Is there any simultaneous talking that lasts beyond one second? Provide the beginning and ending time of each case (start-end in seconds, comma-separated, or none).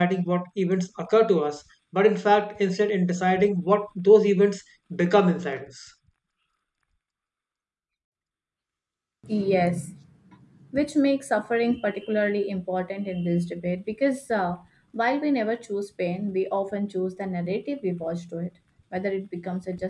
none